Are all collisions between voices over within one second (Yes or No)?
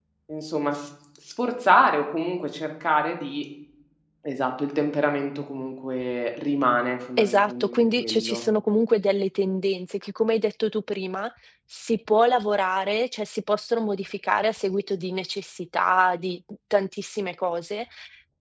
No